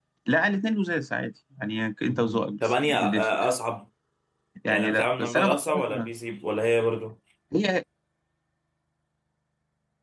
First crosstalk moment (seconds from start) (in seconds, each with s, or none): 2.1 s